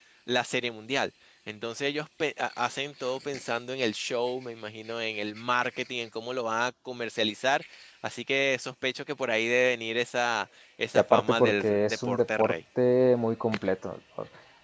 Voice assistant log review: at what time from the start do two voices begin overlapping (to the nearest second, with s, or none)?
11 s